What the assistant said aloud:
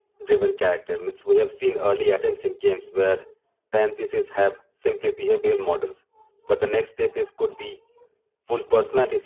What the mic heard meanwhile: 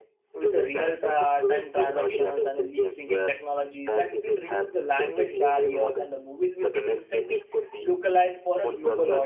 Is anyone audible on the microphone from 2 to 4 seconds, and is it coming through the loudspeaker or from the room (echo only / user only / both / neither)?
both